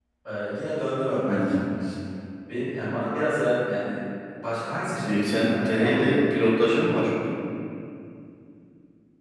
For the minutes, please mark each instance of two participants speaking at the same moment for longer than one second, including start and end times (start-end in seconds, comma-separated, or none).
5.0-6.3